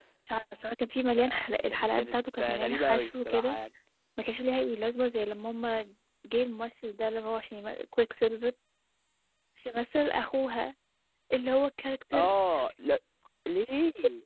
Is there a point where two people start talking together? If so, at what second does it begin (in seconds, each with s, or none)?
1.1 s